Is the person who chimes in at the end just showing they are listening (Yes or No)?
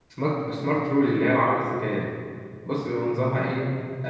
No